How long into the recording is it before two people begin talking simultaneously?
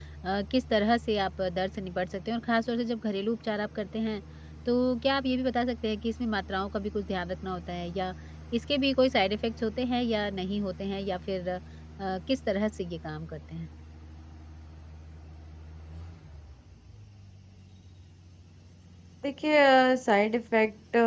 none

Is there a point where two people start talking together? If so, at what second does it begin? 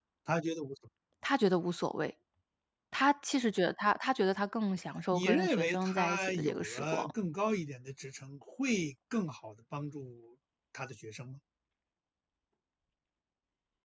5.1 s

